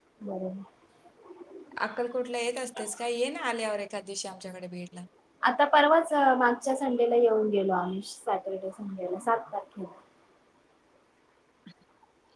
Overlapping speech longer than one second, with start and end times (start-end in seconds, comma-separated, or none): none